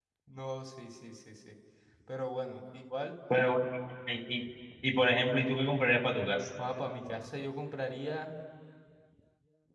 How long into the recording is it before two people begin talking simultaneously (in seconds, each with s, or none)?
none